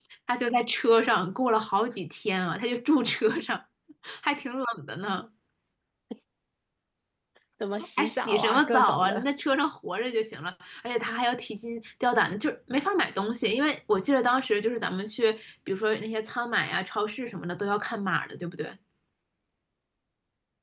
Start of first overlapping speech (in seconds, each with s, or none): 8.0 s